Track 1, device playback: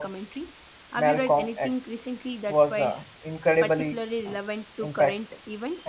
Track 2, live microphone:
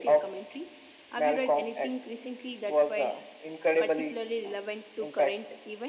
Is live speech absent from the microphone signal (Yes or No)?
Yes